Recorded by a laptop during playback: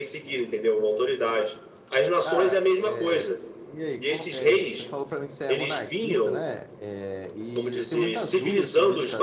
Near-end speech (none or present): present